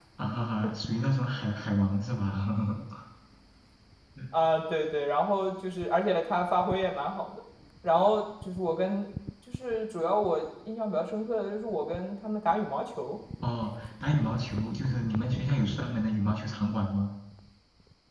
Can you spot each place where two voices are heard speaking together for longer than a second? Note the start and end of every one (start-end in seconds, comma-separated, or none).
none